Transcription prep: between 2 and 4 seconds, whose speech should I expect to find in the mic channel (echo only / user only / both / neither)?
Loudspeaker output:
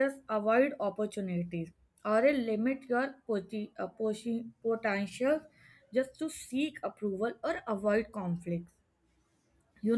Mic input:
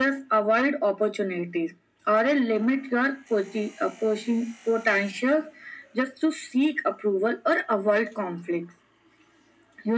echo only